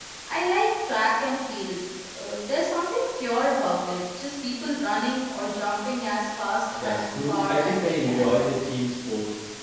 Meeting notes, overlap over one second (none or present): present